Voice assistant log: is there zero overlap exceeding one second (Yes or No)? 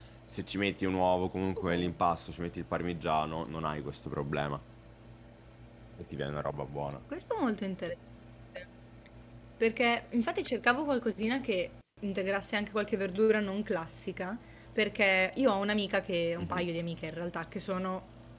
Yes